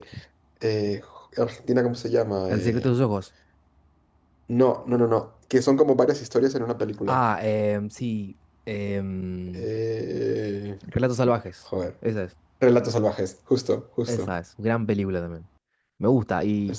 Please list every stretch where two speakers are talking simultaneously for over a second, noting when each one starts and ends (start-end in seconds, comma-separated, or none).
none